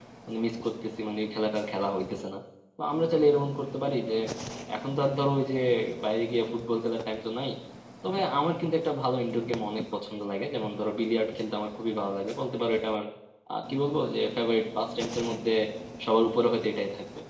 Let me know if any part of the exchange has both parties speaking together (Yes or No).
No